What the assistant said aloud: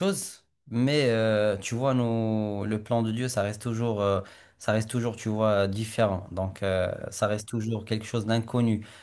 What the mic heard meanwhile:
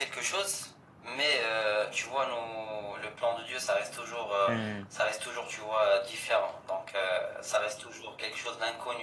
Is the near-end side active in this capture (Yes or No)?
Yes